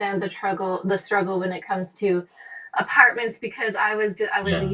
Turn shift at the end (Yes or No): No